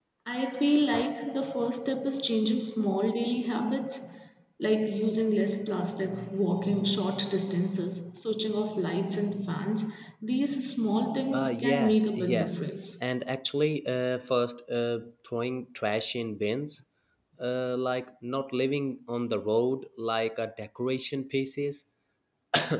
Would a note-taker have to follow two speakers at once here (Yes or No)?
Yes